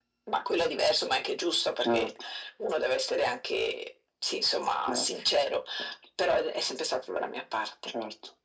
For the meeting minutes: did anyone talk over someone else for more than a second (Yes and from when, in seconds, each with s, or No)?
No